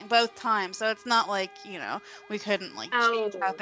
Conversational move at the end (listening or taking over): listening